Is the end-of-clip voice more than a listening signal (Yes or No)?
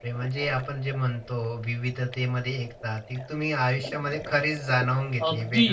Yes